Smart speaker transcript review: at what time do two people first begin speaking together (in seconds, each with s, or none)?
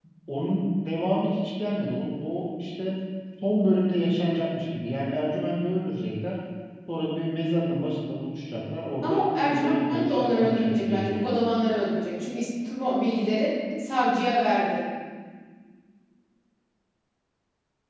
9.0 s